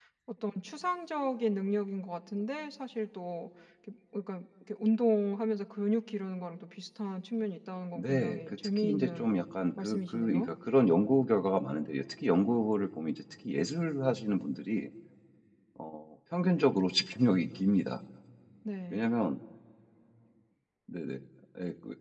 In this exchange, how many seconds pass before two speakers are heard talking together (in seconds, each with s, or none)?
8.0 s